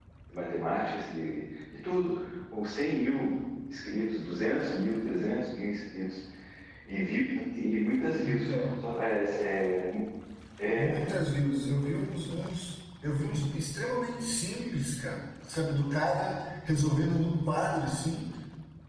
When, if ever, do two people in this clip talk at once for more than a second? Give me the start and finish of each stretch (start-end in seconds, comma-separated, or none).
none